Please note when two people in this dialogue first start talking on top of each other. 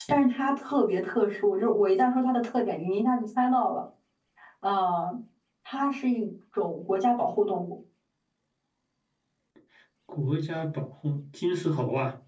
none

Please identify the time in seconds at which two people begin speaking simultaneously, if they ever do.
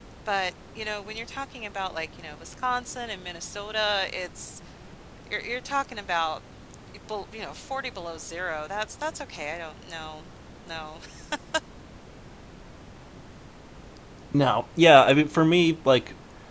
none

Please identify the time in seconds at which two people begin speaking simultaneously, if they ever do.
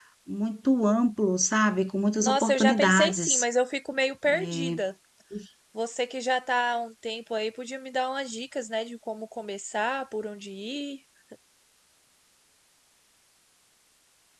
2.2 s

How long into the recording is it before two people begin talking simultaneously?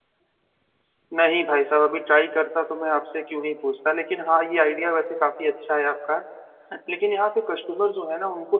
none

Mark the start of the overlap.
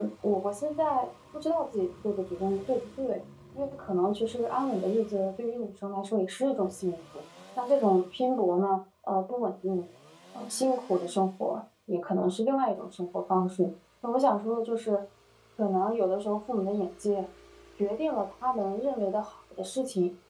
none

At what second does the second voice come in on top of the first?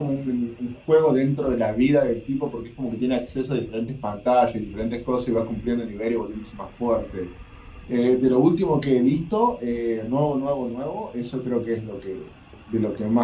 none

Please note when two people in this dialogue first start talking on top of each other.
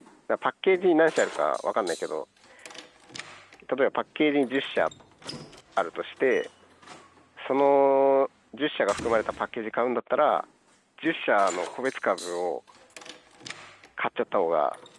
none

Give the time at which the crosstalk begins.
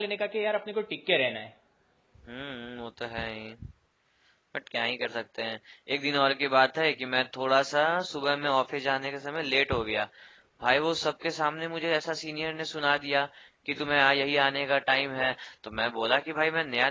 none

